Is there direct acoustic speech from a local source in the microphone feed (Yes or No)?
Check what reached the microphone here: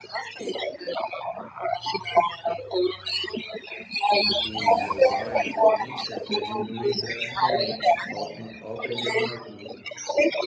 Yes